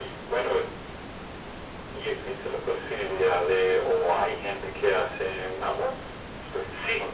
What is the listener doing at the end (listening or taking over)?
taking over